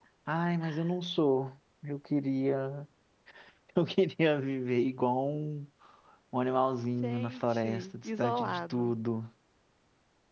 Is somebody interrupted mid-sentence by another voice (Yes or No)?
Yes